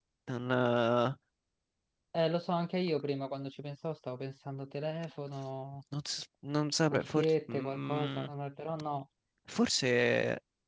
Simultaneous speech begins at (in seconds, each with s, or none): 6.9 s